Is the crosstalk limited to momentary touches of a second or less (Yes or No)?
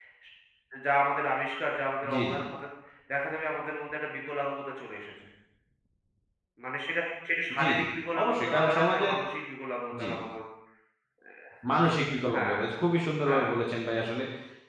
No